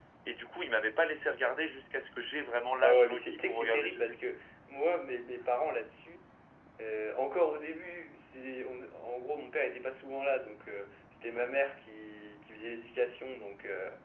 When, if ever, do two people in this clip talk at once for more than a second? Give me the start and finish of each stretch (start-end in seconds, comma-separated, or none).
2.8-4.2